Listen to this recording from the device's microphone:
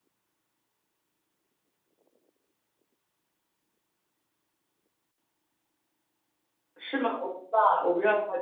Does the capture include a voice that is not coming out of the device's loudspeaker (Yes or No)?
Yes